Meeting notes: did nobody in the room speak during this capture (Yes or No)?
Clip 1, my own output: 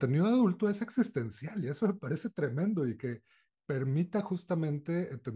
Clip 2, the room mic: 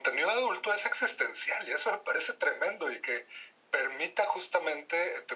Yes